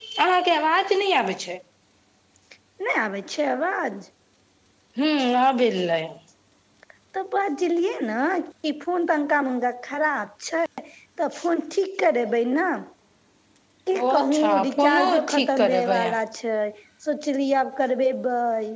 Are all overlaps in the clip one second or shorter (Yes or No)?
No